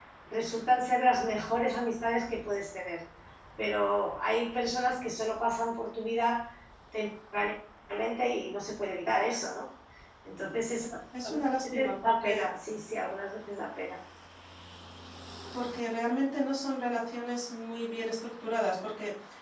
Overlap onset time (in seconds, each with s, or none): 11.2 s